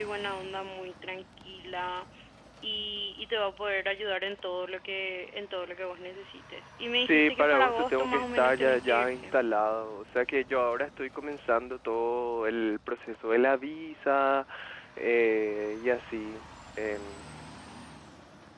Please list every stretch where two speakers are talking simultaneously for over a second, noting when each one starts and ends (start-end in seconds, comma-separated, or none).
7.0-9.3